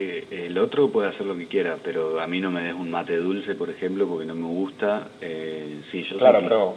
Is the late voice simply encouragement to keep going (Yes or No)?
No